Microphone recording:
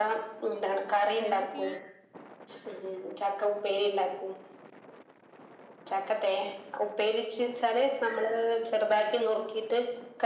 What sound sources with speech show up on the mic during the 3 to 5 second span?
echo only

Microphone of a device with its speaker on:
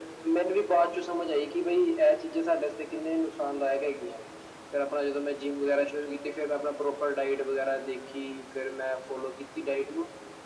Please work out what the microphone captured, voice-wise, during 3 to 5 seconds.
echo only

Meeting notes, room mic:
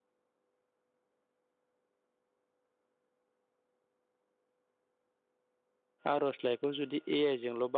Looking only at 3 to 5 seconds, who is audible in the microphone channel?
neither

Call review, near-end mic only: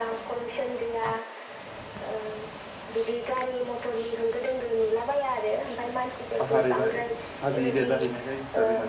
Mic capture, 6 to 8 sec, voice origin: both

